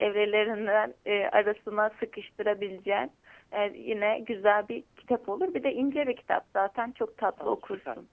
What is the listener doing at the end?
taking over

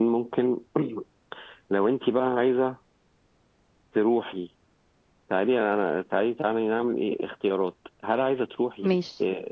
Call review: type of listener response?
listening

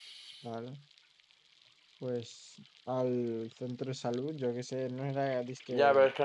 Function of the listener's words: taking over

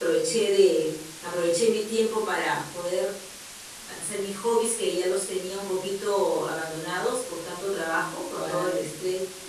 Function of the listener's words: listening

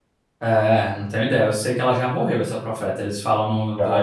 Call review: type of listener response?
taking over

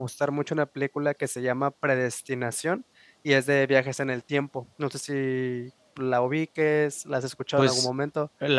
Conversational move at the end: taking over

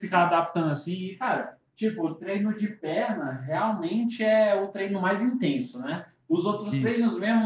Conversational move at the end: listening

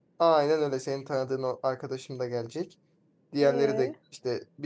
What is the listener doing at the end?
listening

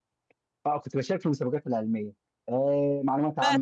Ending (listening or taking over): listening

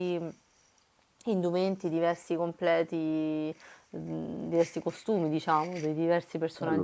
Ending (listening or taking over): taking over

